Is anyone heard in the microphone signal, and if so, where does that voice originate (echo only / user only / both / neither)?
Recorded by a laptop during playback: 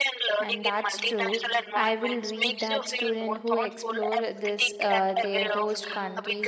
both